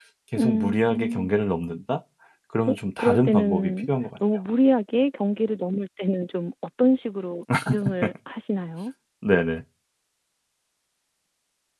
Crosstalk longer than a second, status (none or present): present